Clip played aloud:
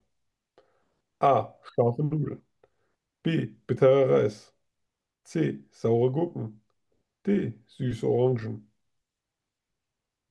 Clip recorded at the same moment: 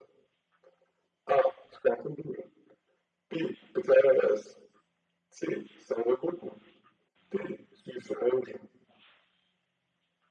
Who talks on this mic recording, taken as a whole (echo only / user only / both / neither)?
echo only